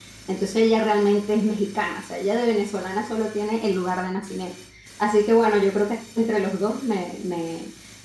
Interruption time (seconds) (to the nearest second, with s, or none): none